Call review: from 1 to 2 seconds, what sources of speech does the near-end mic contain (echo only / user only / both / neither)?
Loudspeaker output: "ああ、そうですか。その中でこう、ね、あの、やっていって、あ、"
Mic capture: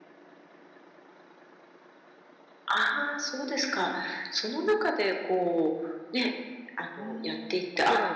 neither